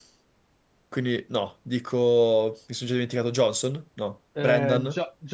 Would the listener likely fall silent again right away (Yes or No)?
No